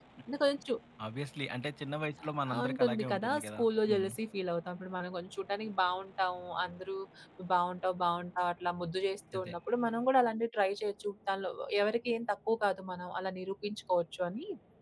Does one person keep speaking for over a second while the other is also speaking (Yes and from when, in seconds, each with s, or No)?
Yes, from 2.4 s